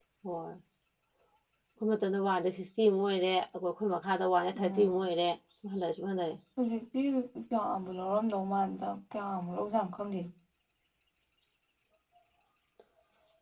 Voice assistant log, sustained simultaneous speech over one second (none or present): none